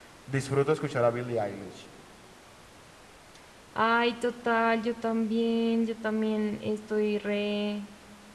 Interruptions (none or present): none